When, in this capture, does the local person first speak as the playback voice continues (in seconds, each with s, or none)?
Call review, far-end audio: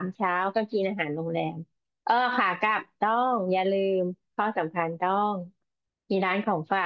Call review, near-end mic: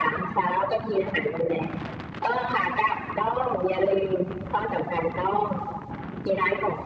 none